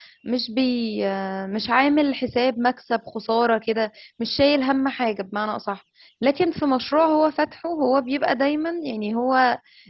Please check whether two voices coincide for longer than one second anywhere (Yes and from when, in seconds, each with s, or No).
No